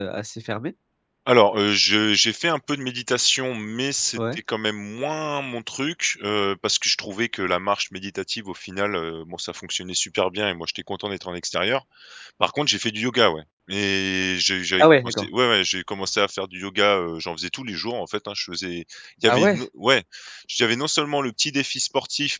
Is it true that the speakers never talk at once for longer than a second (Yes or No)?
Yes